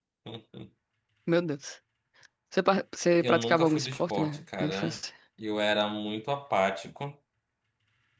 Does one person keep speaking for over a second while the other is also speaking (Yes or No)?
Yes